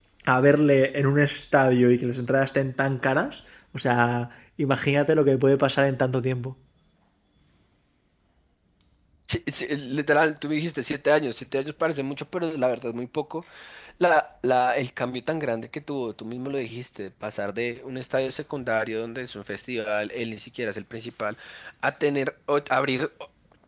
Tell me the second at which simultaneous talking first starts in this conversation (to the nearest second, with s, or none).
none